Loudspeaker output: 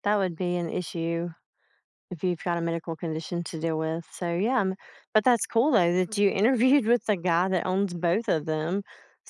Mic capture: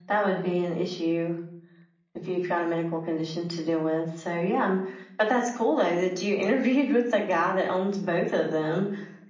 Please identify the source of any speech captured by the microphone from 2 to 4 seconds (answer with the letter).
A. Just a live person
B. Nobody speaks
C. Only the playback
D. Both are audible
C